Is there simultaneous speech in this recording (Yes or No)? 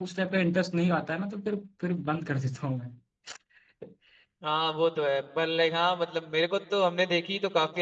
No